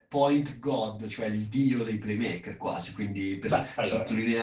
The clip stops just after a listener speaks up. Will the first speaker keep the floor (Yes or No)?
Yes